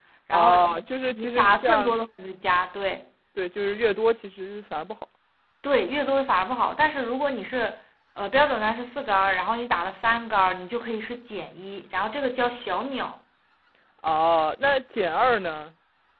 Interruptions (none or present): present